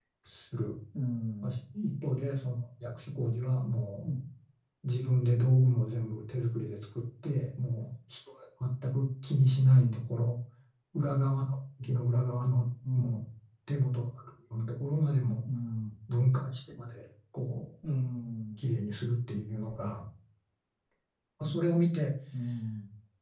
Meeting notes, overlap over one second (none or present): none